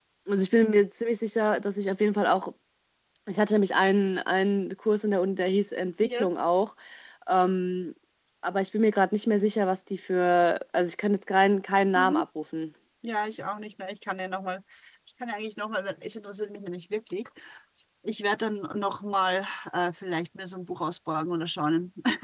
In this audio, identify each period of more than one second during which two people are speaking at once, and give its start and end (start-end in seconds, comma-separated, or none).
none